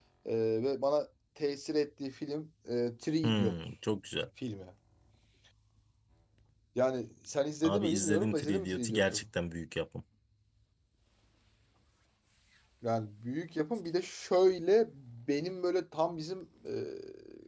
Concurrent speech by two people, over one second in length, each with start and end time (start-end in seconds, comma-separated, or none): 7.6-9.2